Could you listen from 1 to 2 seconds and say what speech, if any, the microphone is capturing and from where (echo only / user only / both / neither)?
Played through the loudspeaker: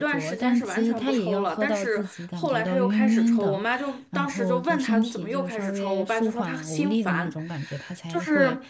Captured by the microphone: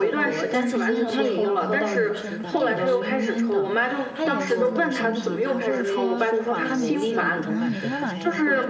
both